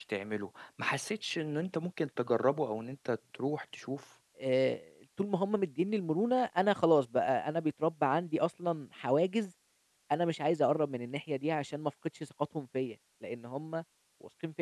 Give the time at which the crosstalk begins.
none

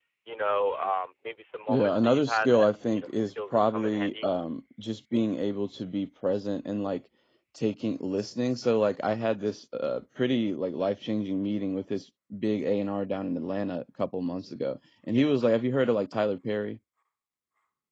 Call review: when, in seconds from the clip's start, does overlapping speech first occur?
2 s

